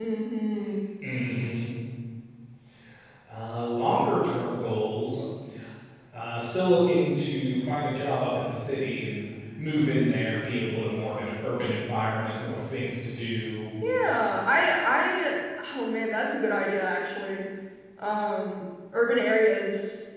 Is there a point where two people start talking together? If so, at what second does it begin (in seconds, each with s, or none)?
none